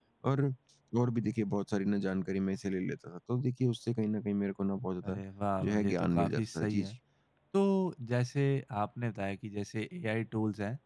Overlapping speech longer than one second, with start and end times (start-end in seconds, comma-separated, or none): 5.6-6.9